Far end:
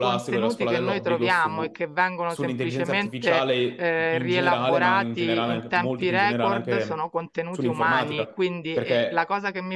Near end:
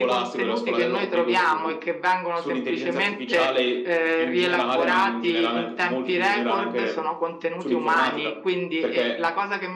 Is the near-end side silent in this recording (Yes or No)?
Yes